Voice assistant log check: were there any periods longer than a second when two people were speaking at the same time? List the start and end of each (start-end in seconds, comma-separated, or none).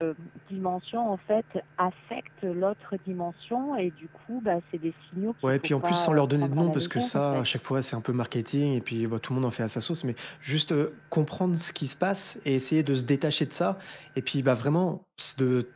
5.4-7.4